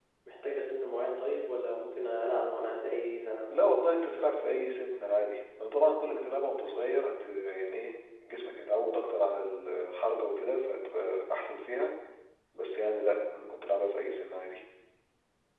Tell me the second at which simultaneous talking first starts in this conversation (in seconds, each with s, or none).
none